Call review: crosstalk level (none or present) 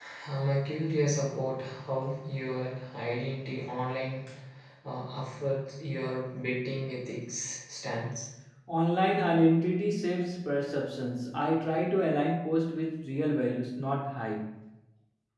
none